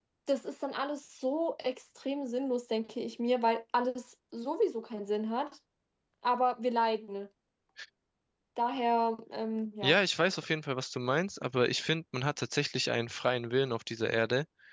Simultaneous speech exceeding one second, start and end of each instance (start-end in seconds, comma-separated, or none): none